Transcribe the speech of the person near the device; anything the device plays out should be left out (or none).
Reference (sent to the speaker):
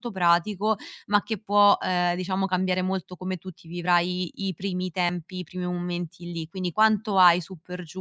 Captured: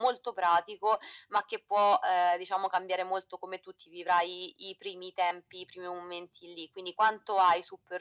none